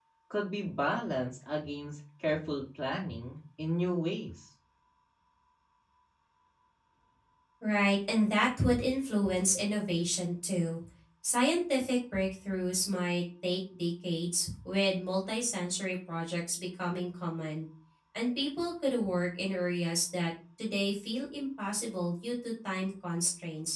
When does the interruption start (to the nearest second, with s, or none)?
none